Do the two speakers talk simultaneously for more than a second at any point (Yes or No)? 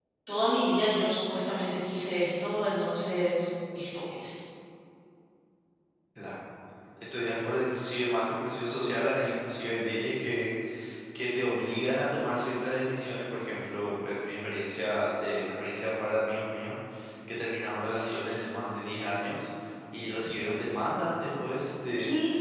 No